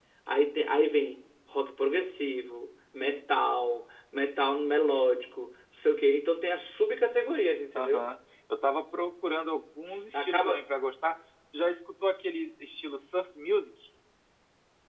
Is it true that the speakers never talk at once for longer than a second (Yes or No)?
Yes